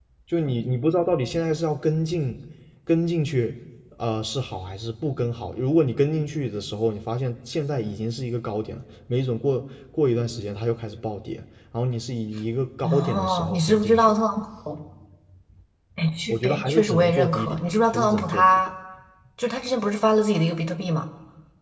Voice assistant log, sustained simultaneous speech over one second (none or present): present